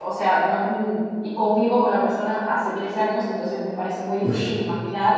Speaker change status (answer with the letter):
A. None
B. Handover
A